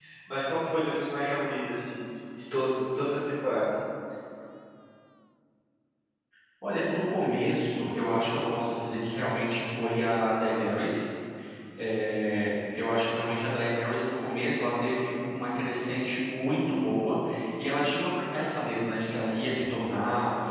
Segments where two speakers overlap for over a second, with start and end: none

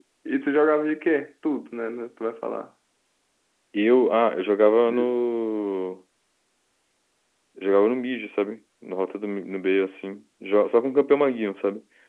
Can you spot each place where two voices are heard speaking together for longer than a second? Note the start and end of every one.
none

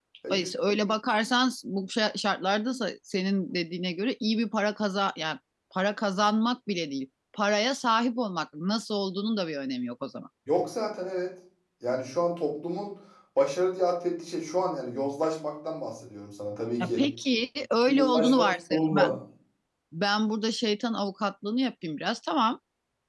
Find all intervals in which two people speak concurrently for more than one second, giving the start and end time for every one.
17.9-19.1

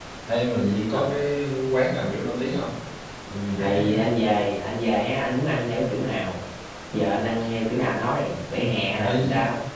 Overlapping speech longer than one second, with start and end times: none

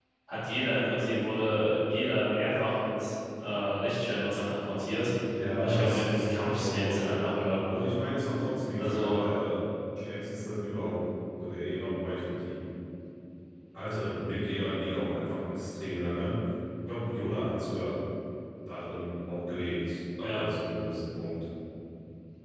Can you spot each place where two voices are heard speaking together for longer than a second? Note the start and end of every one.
5.6-7.3

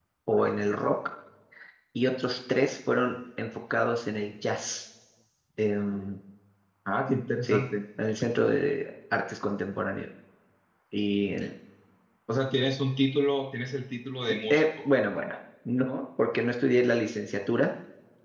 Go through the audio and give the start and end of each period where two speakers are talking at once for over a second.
none

